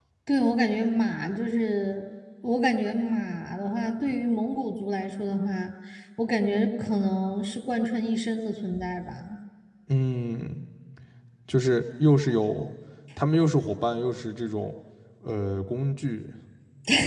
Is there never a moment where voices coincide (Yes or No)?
Yes